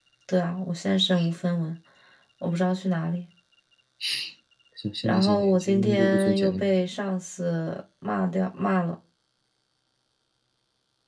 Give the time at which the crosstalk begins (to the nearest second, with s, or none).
5 s